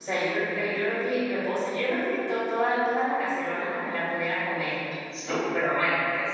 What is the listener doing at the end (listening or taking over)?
listening